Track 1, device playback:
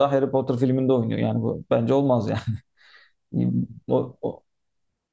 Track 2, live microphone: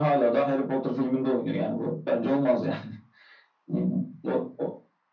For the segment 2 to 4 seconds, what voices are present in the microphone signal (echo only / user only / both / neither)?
echo only